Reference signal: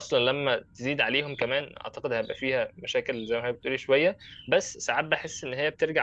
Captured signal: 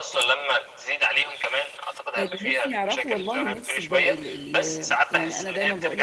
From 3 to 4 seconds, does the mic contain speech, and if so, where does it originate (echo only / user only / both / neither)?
both